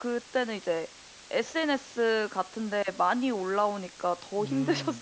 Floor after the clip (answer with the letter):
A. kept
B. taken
B